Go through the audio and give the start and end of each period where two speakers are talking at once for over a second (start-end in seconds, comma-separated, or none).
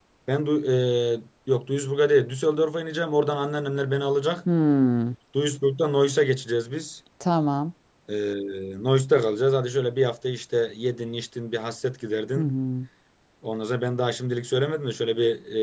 none